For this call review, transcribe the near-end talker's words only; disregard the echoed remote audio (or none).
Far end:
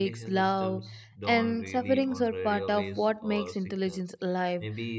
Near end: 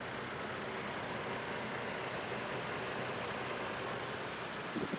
none